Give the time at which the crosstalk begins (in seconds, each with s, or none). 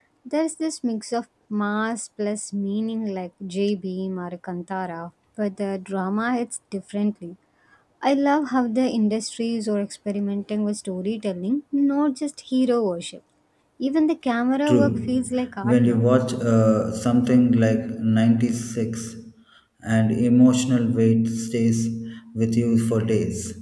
14.7 s